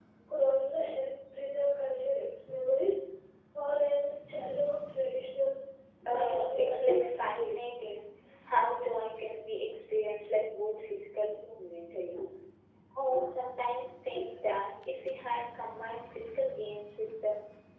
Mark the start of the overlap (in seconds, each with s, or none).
6.0 s